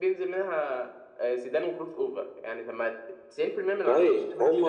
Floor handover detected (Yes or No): Yes